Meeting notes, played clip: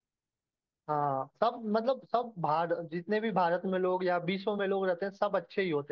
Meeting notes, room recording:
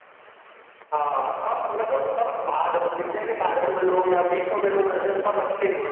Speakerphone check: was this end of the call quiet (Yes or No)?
Yes